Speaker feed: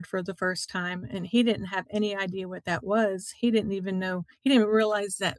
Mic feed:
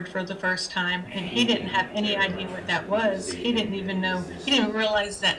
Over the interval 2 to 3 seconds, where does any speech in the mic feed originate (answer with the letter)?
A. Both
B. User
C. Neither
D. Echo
A